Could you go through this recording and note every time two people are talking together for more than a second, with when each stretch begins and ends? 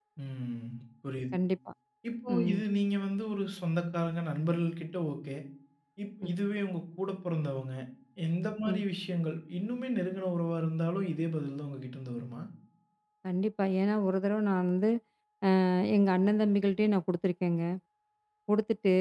none

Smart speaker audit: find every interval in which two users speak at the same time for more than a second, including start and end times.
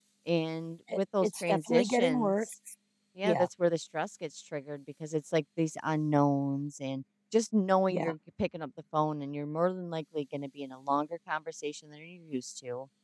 0.9-2.5

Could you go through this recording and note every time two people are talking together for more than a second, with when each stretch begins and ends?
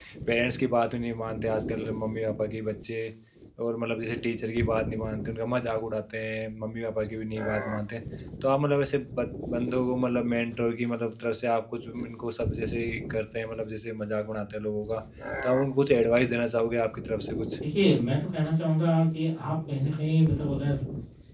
none

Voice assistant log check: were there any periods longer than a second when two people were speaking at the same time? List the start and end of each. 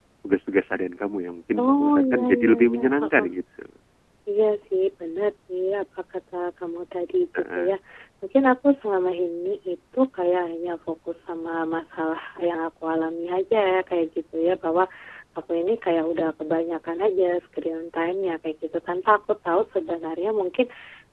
1.6-3.3

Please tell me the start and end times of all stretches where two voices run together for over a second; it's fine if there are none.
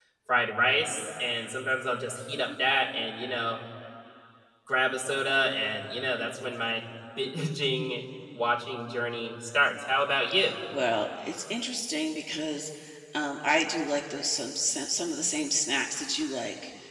none

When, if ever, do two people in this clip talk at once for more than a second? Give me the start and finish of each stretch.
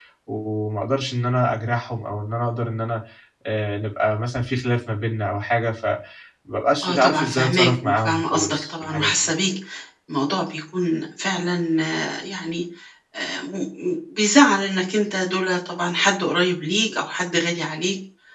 6.8-9.1

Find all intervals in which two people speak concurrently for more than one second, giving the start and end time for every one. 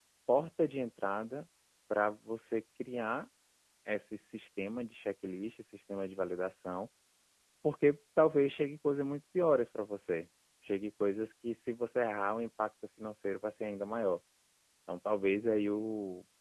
none

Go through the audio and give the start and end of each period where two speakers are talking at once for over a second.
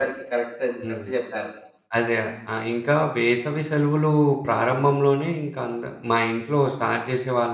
none

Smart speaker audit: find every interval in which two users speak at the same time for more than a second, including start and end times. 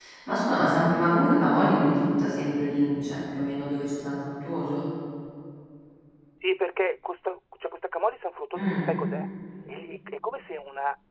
none

